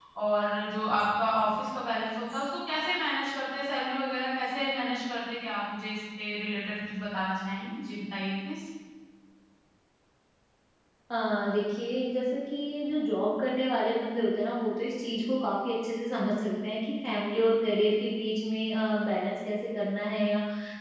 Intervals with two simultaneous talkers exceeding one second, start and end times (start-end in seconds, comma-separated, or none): none